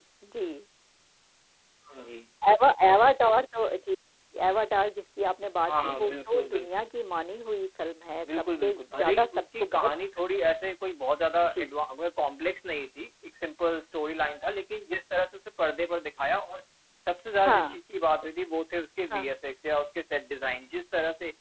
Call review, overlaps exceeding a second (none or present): present